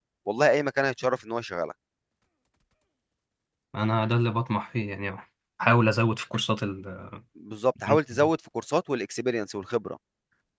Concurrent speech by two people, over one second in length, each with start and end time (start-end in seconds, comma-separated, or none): none